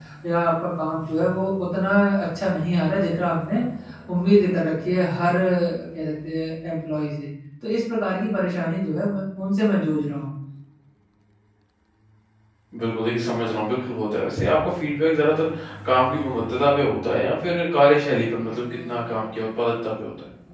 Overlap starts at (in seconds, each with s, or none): none